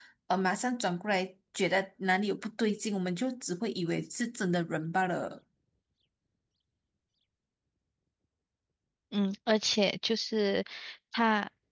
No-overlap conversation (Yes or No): Yes